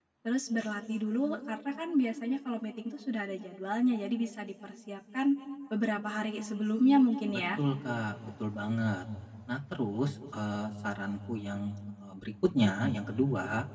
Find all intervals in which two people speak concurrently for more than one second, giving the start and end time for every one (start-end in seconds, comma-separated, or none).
none